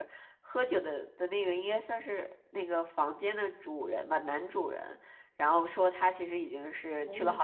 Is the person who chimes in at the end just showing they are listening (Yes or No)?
Yes